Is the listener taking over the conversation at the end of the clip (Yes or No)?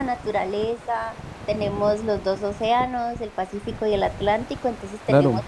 No